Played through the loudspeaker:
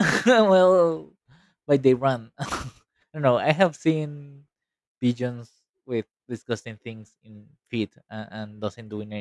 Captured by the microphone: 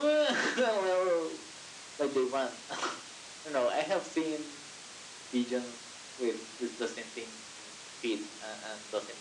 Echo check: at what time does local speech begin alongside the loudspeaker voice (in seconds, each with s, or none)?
none